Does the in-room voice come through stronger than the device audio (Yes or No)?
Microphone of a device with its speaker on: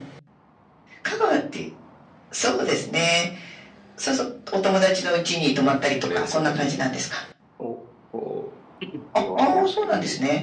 No